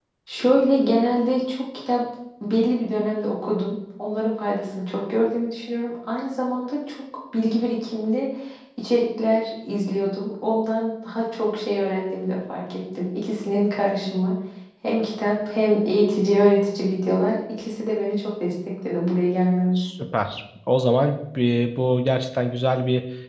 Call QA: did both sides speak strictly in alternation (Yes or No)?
Yes